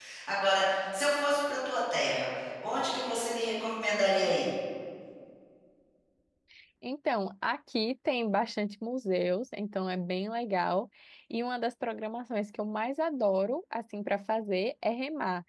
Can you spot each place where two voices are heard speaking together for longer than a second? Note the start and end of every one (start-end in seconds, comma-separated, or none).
none